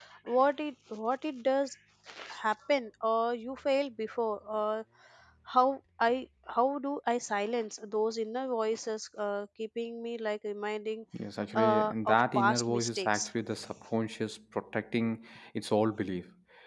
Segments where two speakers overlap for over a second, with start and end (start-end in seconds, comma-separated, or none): 11.6-13.3